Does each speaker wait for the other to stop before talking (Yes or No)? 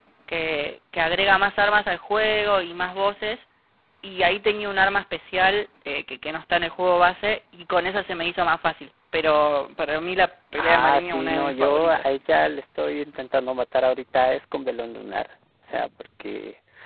No